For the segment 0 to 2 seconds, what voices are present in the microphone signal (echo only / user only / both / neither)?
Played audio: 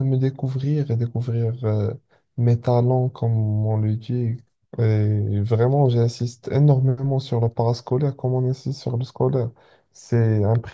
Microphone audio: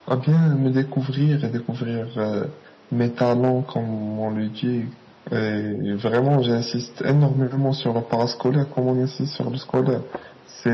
echo only